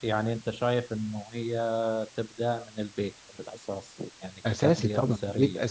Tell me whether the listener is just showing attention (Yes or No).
No